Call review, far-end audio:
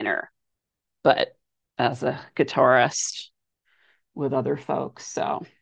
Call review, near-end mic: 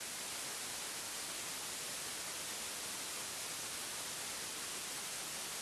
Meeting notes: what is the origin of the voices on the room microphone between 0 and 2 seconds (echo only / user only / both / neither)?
neither